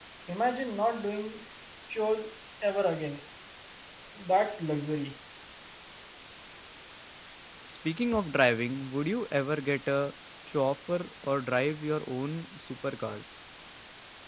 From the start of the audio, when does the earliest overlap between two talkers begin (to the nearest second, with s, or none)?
none